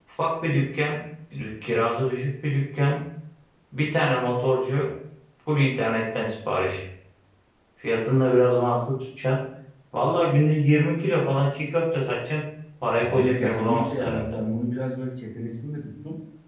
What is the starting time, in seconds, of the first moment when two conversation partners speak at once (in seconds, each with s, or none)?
13.0 s